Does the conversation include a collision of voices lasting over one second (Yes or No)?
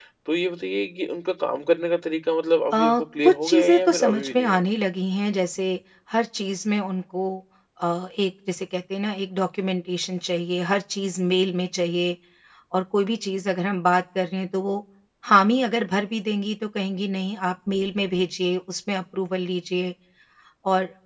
Yes